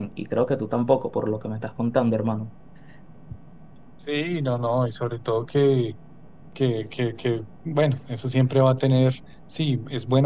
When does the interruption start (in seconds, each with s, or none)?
none